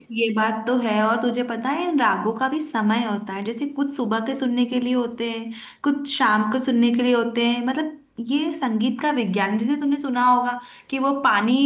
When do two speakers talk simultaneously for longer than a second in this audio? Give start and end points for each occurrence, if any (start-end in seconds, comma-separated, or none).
none